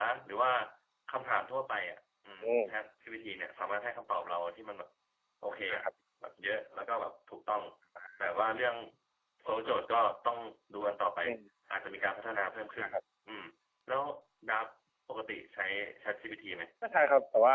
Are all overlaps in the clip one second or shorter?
Yes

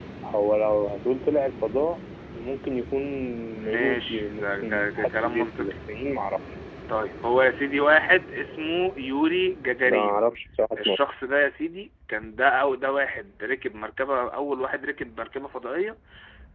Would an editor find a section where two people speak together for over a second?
Yes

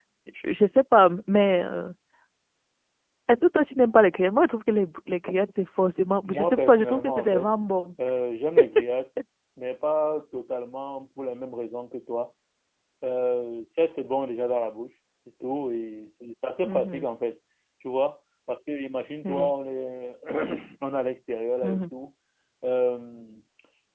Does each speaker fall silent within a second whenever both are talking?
No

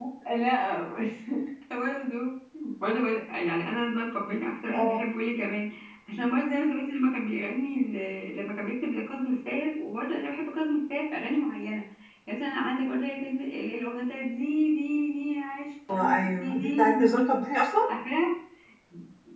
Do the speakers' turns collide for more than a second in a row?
Yes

